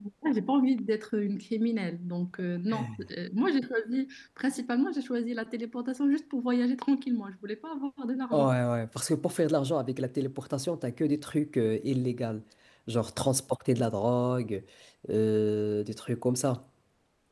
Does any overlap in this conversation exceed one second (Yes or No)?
No